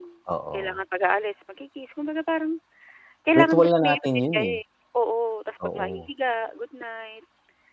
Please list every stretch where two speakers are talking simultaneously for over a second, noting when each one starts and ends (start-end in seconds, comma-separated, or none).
3.4-4.6